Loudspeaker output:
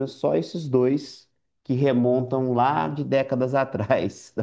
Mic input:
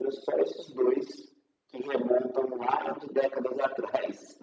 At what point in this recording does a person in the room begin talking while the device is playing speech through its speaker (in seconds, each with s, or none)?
none